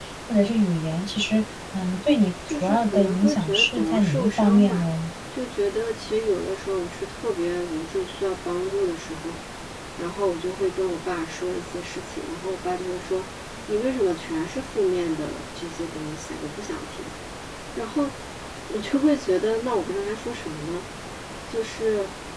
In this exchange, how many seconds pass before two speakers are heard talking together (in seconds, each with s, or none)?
2.4 s